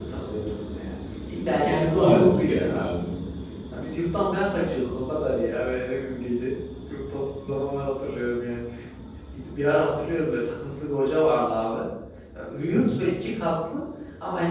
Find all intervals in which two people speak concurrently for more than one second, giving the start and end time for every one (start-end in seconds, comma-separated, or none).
1.4-2.8